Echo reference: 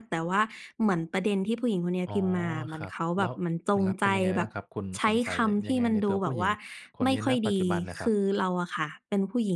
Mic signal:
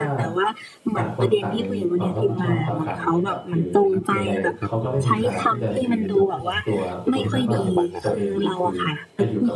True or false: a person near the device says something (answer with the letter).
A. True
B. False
A